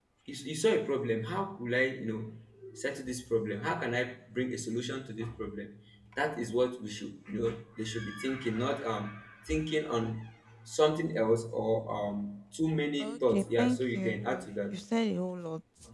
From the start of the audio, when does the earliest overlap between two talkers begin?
13.0 s

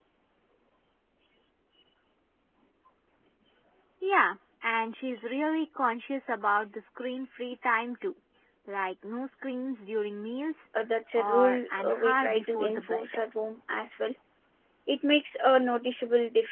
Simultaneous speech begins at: 11.2 s

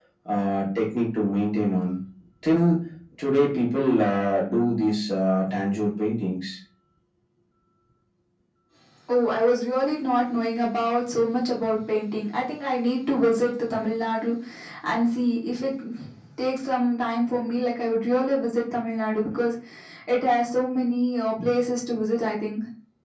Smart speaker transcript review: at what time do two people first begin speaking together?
none

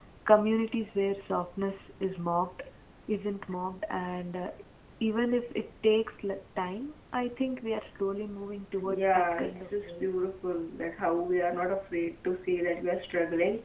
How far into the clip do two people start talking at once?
8.8 s

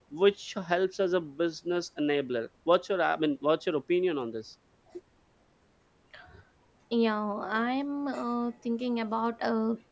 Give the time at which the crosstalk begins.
none

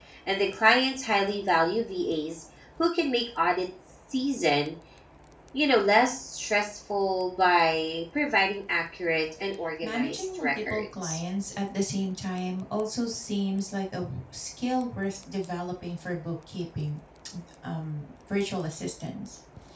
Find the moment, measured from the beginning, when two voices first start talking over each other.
9.8 s

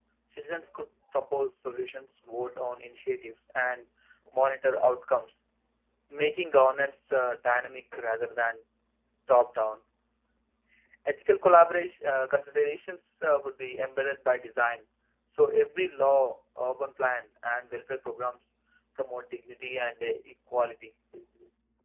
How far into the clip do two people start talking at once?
none

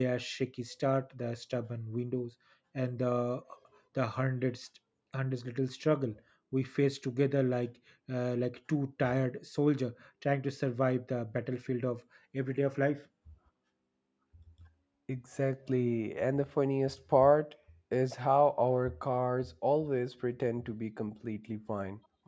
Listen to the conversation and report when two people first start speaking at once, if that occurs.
none

